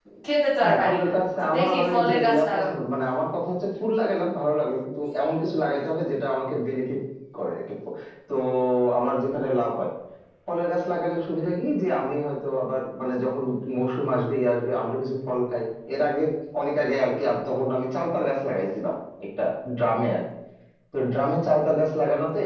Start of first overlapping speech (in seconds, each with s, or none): 0.6 s